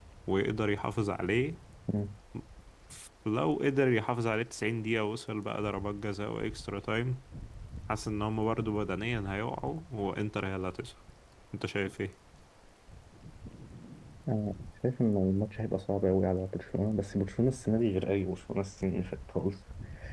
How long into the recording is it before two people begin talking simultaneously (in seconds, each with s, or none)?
none